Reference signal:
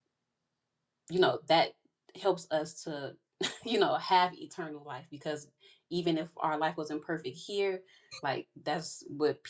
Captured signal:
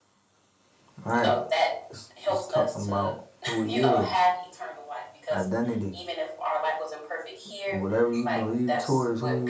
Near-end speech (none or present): present